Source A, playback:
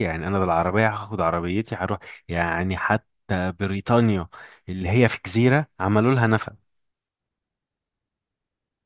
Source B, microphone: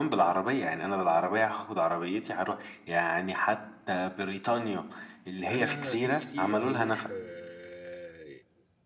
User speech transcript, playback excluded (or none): انا نفسي اروح آه،